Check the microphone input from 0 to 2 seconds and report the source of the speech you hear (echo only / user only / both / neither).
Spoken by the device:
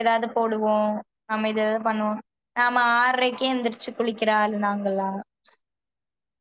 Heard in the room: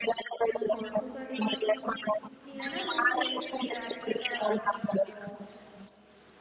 both